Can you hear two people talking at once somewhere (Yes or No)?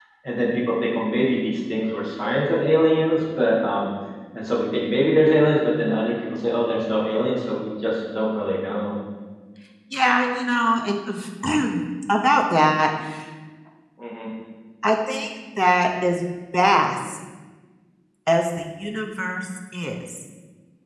No